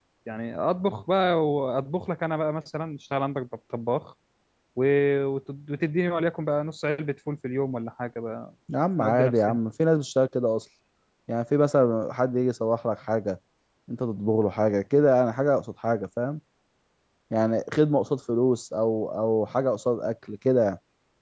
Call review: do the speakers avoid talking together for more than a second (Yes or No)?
Yes